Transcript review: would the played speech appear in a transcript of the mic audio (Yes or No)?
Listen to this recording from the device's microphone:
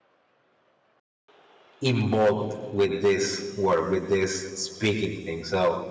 No